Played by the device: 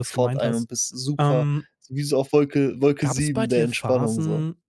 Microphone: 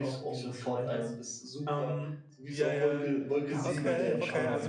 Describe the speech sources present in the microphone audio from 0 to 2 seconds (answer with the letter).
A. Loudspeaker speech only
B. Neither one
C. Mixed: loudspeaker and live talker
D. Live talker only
A